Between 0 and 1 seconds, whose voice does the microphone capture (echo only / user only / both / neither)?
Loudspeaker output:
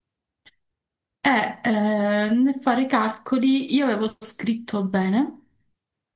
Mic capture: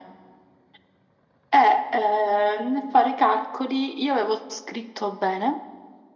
neither